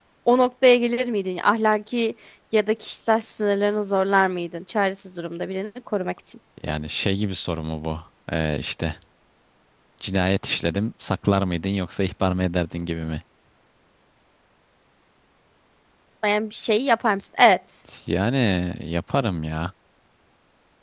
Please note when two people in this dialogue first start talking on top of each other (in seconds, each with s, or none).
none